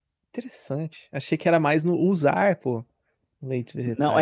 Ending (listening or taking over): taking over